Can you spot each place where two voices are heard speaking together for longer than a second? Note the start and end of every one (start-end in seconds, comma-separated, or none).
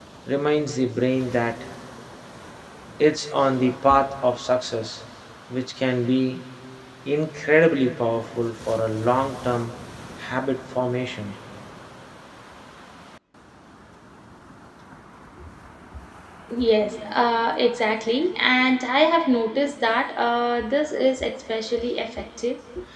none